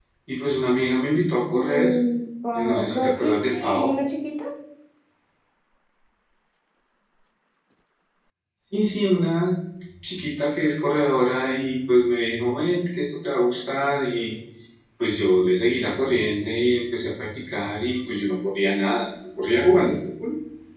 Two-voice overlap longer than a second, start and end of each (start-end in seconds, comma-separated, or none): 2.5-3.9